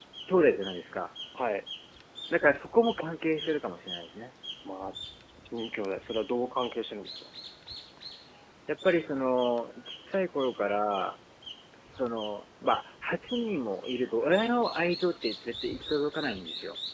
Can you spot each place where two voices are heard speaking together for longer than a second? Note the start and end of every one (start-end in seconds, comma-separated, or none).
none